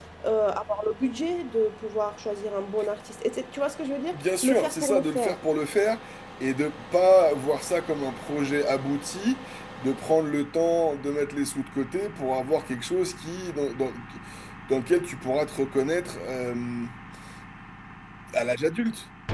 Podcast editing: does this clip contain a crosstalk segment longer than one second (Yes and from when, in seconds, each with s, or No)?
Yes, from 4.1 s